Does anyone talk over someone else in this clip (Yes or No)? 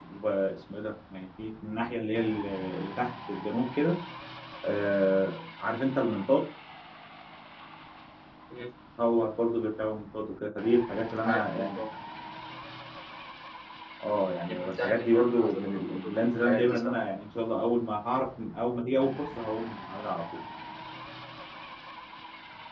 Yes